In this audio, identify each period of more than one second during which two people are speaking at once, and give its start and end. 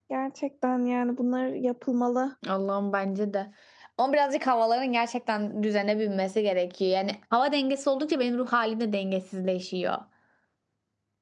none

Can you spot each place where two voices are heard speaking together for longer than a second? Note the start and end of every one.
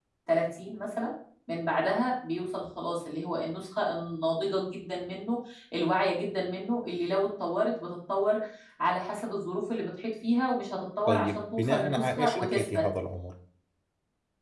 11.1-12.8

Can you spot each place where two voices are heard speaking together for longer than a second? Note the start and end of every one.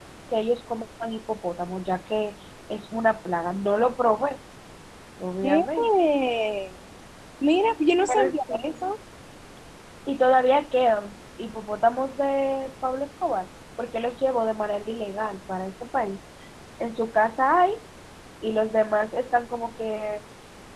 none

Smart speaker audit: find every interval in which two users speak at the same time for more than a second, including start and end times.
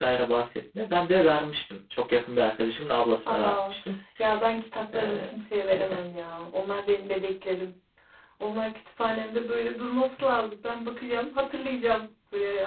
none

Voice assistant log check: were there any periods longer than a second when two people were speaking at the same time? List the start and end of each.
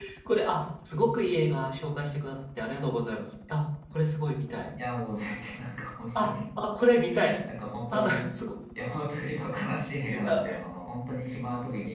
none

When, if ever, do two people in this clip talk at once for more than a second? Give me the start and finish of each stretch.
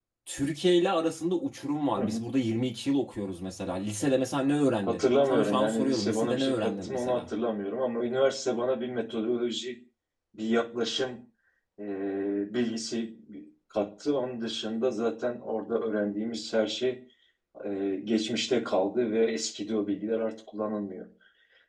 4.9-7.2

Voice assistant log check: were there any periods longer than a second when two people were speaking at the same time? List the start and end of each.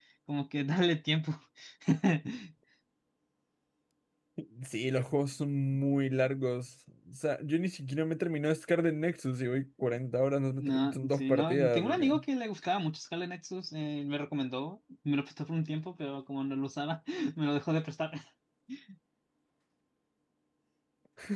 10.6-12.2

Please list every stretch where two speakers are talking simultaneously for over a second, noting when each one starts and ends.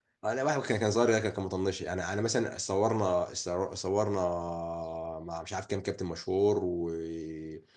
none

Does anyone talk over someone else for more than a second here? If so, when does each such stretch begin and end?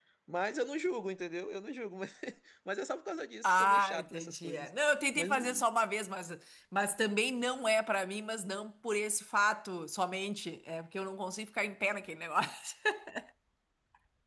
3.4-4.7

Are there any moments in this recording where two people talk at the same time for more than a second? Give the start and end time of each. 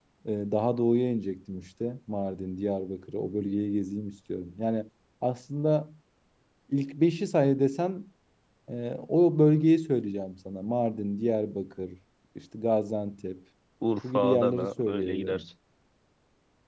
14.1-15.4

